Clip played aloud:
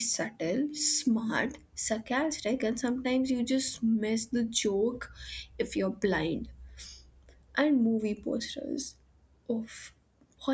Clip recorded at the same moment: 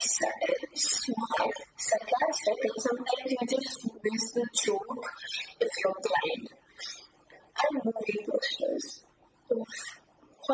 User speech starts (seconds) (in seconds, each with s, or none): none